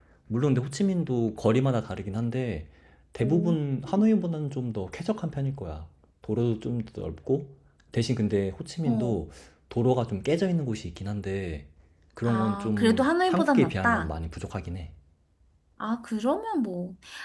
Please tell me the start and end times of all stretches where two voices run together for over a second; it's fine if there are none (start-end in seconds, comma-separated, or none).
12.3-14.1